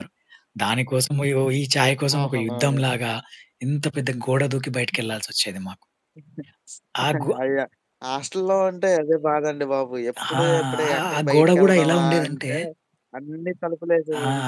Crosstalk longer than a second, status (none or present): present